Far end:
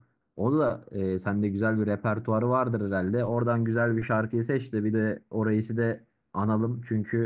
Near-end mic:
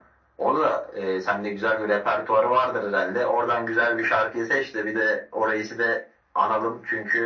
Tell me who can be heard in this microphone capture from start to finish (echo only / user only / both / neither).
echo only